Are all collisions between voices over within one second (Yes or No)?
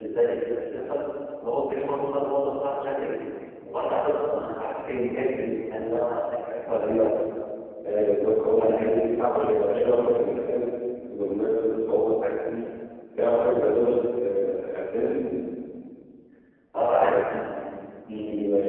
Yes